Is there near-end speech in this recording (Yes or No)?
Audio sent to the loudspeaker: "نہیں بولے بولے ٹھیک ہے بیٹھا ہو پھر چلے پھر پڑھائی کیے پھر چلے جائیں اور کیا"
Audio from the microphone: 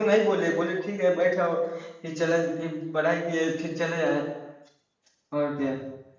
No